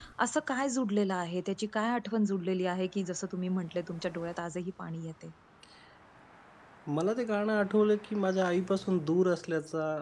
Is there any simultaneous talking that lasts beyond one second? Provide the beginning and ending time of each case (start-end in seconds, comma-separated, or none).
none